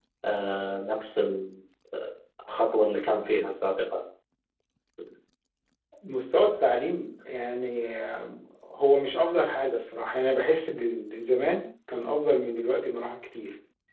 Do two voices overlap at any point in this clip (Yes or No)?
No